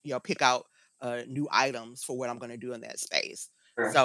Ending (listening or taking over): listening